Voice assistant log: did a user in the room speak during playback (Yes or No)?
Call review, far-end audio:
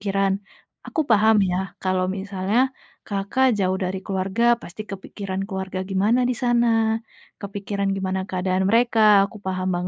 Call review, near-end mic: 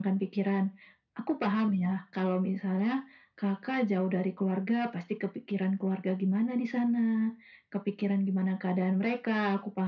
No